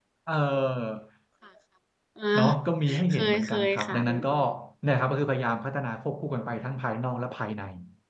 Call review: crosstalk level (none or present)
present